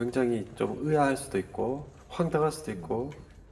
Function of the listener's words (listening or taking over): listening